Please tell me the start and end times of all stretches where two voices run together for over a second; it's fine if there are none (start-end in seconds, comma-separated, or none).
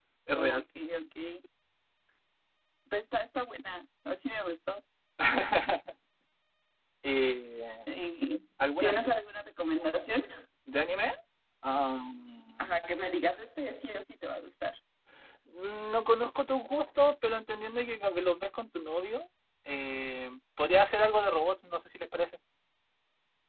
none